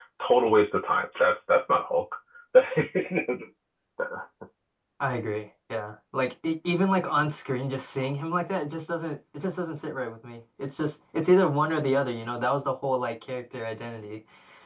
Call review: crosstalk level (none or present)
none